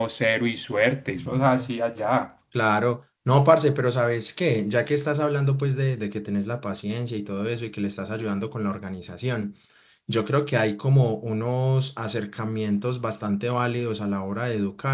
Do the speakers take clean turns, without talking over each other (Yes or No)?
Yes